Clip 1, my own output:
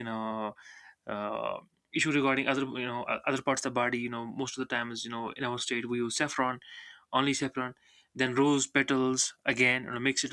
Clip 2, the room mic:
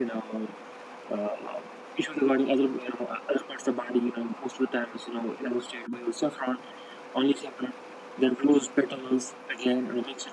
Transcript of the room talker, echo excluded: none

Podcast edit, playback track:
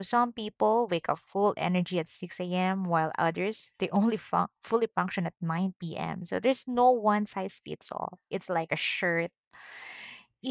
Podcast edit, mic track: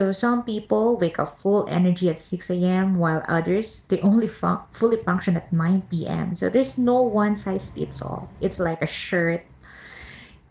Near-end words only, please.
none

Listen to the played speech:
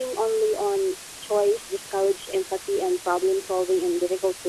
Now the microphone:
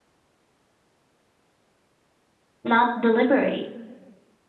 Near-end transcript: not deliberate.

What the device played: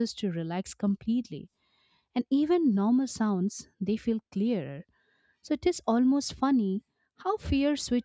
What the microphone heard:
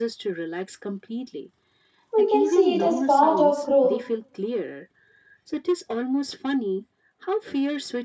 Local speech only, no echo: we can see it as part of growth.

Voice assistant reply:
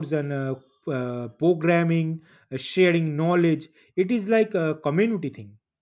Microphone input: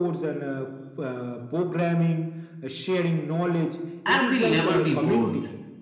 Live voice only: And we'll never be bored.

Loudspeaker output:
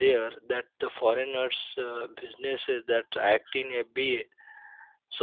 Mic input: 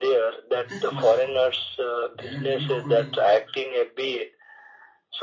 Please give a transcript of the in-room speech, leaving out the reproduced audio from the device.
this much fun. There are many off-roading

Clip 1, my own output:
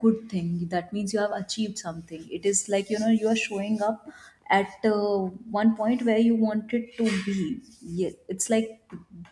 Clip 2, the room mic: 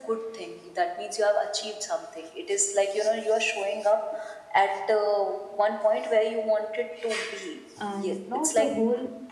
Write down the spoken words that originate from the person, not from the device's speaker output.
and not the whole

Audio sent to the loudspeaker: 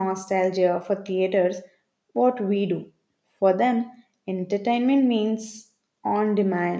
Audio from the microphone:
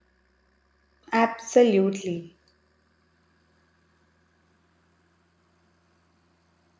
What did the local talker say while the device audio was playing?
Absolutely.

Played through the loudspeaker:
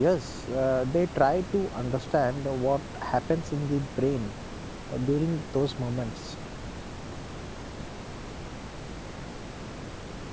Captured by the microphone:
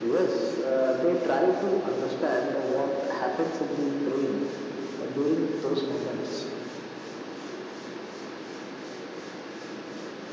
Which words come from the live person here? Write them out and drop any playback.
none

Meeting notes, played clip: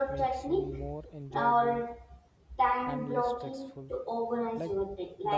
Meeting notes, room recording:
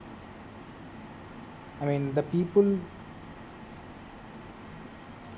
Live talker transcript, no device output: i mean the people

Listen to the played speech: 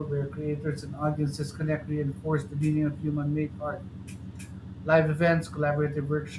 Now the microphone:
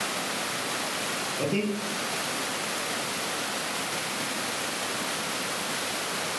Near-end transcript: I think

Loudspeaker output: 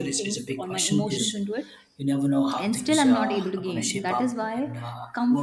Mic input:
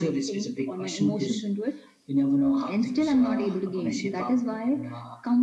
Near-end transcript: none

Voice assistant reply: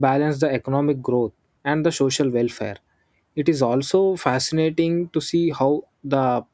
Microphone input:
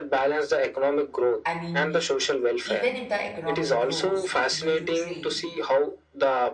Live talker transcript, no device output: I mean, even if the economy grows due to trade,

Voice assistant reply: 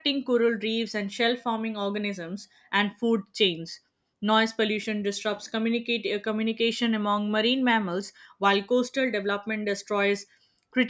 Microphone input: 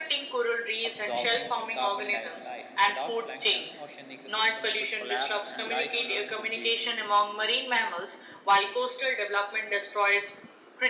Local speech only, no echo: absorbing carbon dioxide. Without plankton, ocean ecosystems would collapse and life on Earth would be

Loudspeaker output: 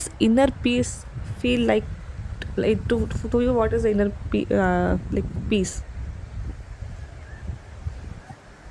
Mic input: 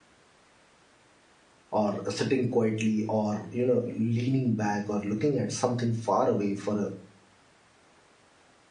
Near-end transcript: or sitting quietly, or you know leaning back, or looking at something far away for a

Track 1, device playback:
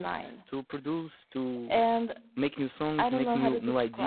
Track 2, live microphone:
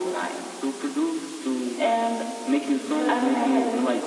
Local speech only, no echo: but I get it.

